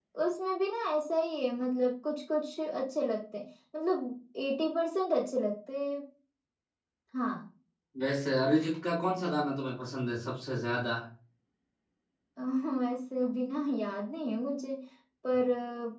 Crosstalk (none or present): none